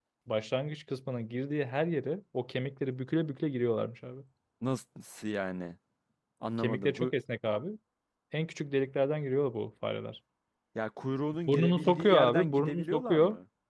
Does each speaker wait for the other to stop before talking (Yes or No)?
No